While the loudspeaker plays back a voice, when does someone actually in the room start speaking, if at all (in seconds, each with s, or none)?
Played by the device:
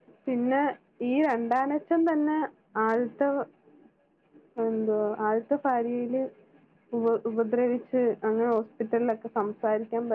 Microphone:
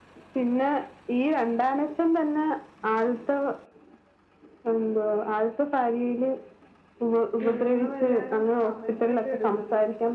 7.4 s